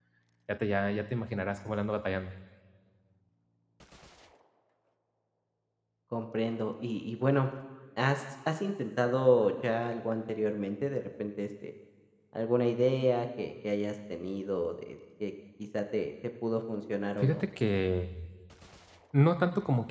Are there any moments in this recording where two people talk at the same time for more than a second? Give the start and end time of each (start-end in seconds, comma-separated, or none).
none